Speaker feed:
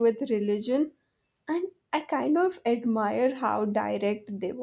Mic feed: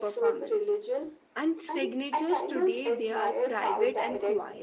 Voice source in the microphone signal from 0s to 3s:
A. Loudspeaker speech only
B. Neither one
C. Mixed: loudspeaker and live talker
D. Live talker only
C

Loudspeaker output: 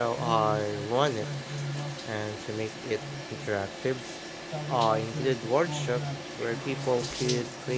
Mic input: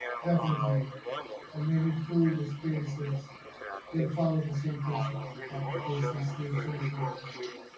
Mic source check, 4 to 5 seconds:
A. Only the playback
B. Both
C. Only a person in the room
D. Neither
B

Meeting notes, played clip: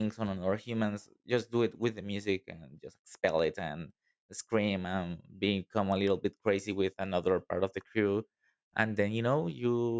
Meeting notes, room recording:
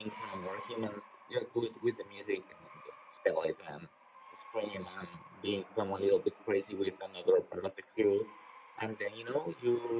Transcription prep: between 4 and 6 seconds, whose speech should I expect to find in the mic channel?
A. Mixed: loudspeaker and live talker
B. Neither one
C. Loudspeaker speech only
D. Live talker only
C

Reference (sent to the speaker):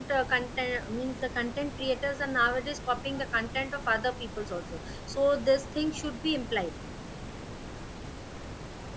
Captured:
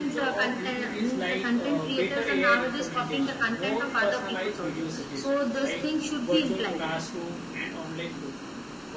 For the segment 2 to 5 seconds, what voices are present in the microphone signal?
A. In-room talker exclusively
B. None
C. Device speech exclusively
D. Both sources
D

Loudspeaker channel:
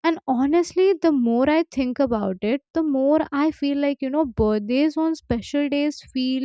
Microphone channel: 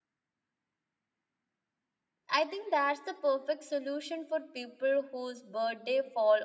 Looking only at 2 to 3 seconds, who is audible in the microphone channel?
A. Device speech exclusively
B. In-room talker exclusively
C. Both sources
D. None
B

